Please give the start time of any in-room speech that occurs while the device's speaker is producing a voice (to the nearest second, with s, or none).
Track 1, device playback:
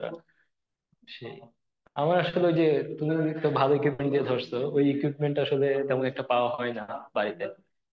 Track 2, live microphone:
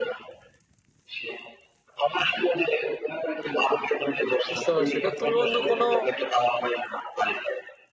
5 s